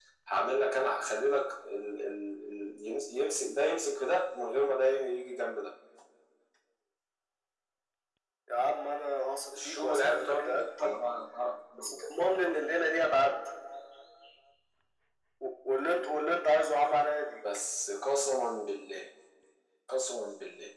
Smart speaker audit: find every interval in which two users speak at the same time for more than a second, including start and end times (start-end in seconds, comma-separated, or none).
9.7-11.0